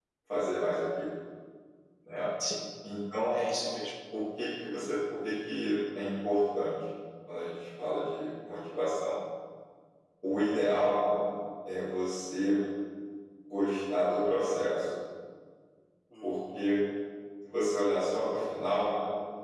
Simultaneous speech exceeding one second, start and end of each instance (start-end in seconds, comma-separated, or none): none